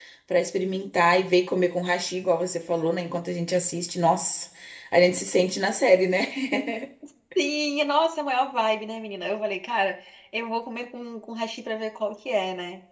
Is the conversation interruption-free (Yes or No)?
Yes